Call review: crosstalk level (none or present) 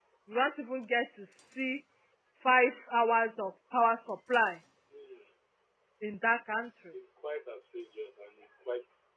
none